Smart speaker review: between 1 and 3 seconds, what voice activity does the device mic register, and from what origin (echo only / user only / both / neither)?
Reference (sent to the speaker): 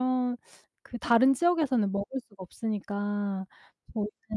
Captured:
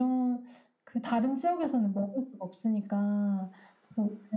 echo only